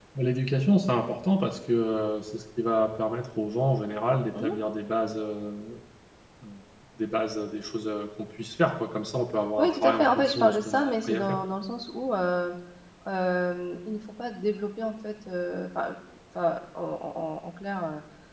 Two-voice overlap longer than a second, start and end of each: 9.6-11.4

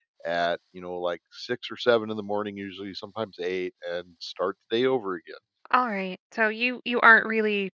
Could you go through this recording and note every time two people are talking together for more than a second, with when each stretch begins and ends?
none

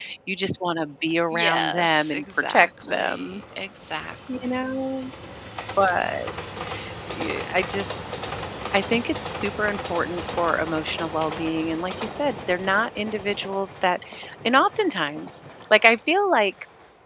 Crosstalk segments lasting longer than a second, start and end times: 1.3-3.4

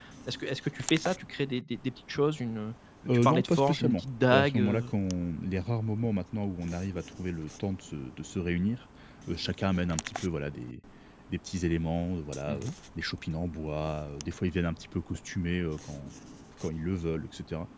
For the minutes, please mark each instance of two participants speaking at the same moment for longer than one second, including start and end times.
3.1-4.9

